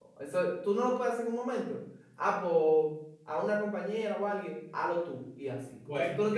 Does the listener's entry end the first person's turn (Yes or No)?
Yes